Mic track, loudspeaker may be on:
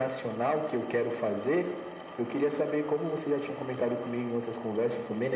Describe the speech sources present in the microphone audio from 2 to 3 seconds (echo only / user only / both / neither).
echo only